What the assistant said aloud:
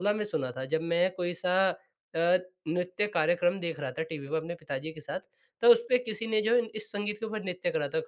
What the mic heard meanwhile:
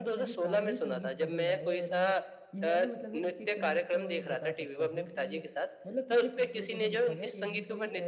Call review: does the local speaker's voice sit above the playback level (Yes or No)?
No